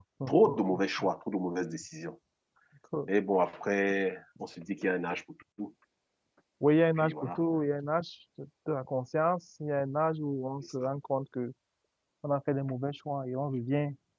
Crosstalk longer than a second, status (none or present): none